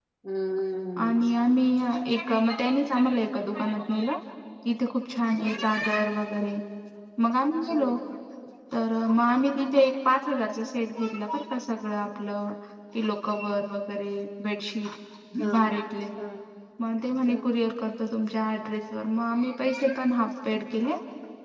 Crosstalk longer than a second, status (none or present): none